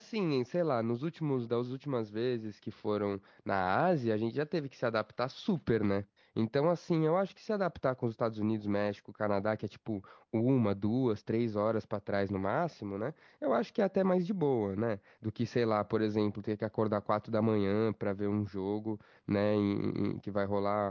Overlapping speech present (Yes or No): No